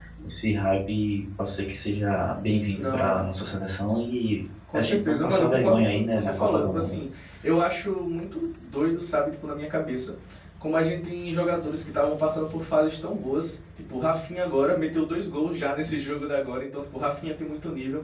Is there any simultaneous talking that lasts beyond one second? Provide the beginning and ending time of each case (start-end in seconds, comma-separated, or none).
4.7-6.9